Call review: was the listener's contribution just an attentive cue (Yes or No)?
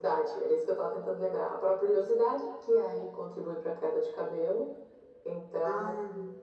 Yes